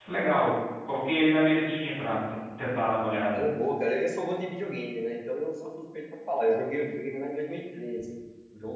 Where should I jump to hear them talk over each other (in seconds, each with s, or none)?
none